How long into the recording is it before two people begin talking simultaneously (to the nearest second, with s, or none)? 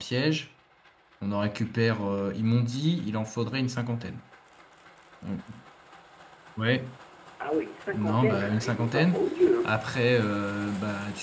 8 s